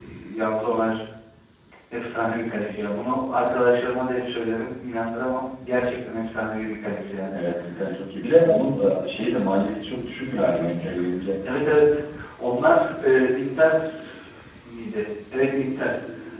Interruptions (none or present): none